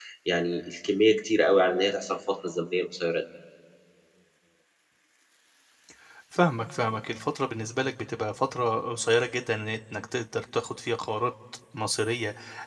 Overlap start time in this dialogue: none

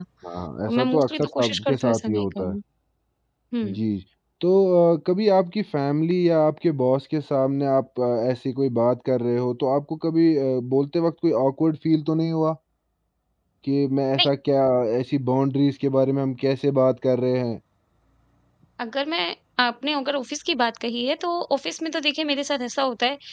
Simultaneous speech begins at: 0.7 s

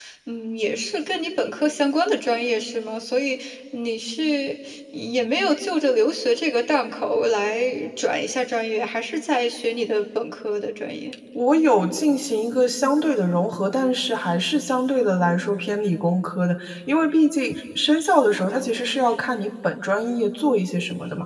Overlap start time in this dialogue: none

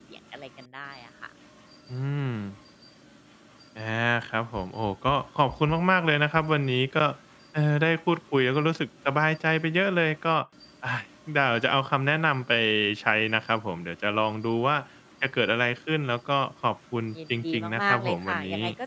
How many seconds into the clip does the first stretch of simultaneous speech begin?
17.1 s

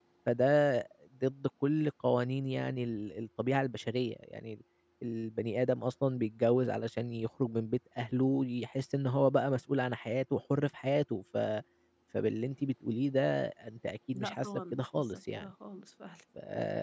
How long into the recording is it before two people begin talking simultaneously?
14.1 s

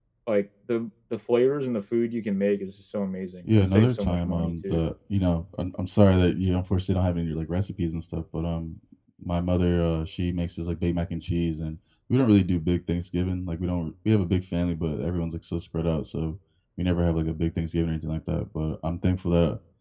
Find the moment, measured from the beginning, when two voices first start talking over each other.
3.4 s

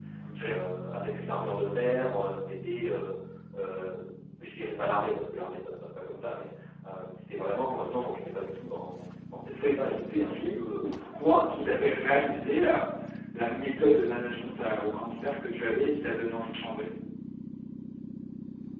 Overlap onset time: 9.5 s

